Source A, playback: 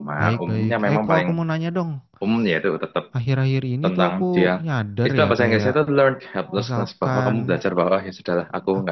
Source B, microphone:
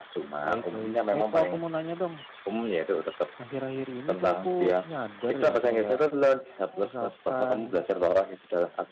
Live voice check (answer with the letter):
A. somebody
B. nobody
B